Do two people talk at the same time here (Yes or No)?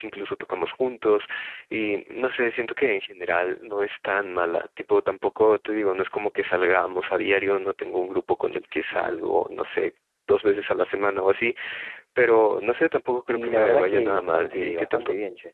Yes